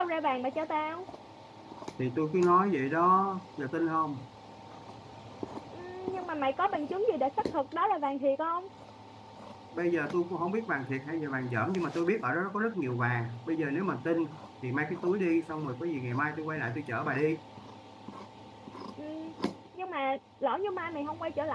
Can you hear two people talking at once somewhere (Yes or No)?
No